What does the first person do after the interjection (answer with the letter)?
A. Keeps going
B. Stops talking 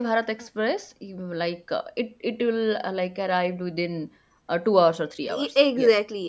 B